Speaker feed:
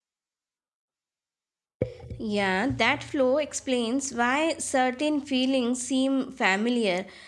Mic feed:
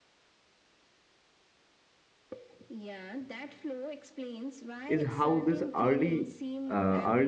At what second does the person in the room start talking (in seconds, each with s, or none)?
4.9 s